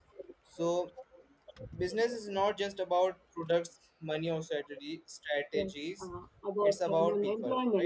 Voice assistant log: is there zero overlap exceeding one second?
No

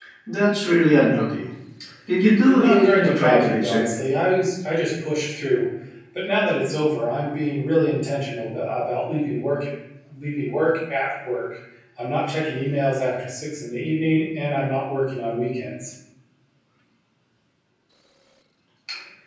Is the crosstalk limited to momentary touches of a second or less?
No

